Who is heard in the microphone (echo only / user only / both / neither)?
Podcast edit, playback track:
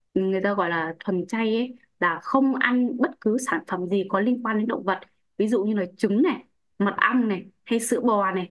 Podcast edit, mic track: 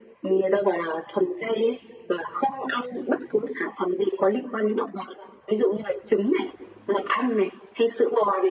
echo only